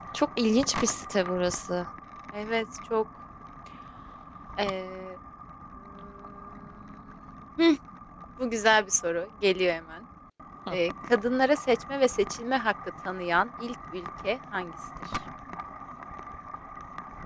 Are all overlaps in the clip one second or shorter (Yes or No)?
Yes